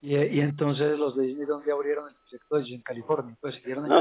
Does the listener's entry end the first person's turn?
Yes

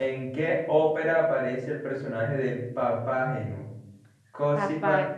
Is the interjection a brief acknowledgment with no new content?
Yes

